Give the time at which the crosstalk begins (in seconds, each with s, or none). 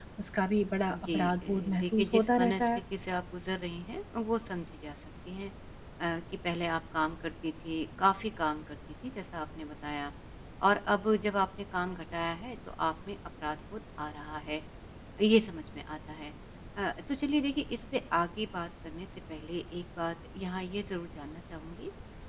1.1 s